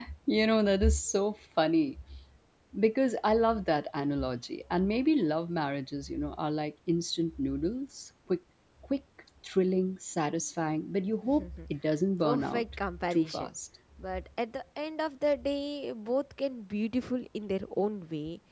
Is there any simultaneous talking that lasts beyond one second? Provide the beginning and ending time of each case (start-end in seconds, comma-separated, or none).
12.2-13.5